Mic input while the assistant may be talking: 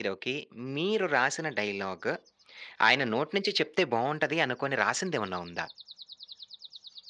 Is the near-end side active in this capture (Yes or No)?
Yes